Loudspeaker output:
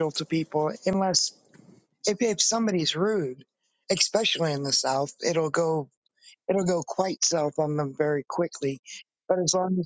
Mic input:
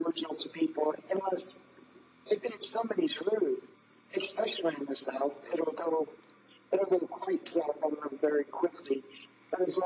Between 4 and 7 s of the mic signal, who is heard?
echo only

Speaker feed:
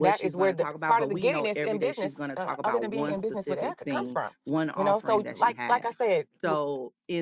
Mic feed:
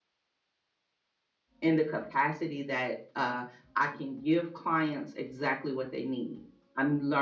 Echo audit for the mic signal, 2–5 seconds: user only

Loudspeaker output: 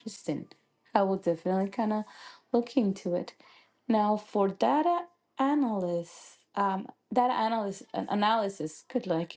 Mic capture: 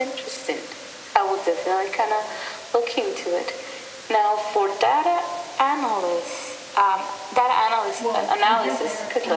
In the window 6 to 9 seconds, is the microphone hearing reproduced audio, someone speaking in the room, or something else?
both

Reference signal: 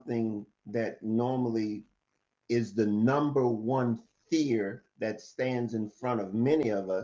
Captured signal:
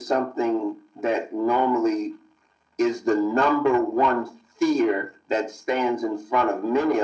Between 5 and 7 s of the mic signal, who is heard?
echo only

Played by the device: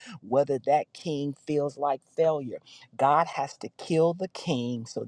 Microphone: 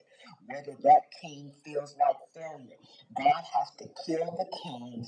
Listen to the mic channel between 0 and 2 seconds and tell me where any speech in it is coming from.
echo only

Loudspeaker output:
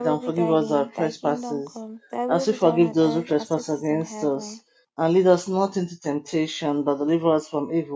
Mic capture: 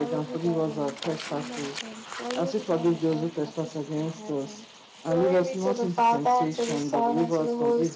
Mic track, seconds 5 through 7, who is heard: both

